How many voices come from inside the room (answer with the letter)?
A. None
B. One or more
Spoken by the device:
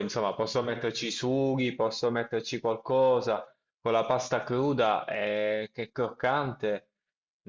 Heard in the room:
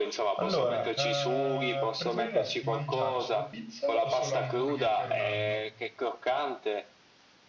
B